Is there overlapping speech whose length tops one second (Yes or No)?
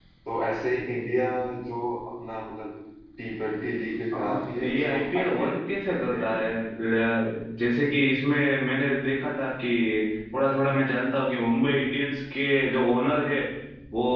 Yes